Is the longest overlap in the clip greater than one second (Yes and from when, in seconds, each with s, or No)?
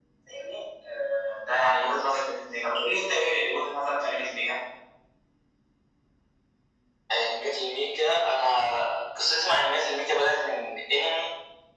No